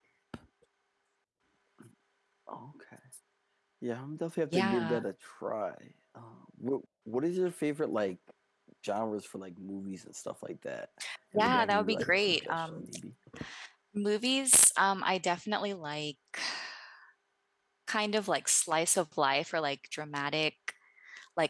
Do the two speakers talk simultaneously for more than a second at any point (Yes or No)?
Yes